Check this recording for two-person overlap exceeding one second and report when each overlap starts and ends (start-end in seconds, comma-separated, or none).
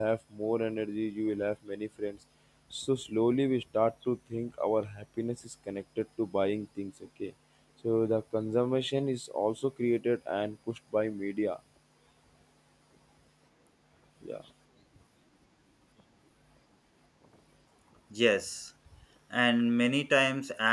none